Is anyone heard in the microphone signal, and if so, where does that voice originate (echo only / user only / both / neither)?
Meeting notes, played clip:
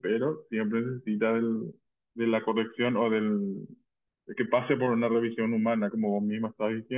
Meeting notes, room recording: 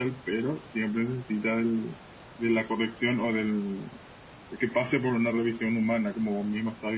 echo only